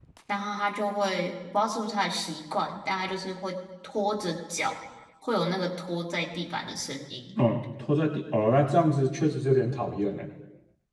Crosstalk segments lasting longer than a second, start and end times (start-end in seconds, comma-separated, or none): none